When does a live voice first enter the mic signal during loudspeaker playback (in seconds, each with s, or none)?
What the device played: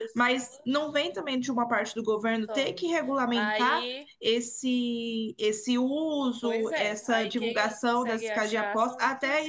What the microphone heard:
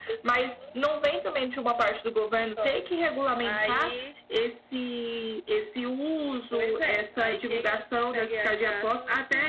none